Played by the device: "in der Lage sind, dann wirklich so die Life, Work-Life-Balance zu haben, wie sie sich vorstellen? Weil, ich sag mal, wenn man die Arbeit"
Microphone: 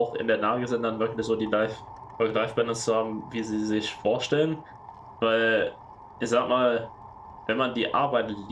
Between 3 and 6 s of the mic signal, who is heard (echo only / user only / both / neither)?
echo only